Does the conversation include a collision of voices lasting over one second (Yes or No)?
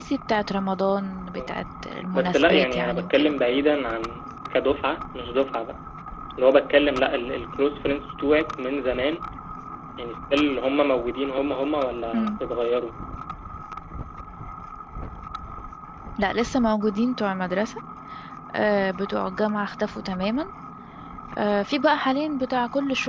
Yes